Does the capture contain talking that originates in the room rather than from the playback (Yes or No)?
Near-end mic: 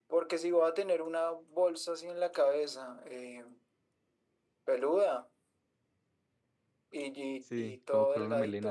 Yes